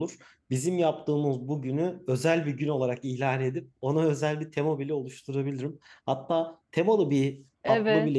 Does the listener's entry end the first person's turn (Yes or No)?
No